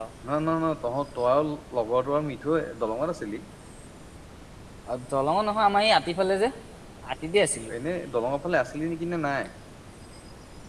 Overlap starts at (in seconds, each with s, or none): none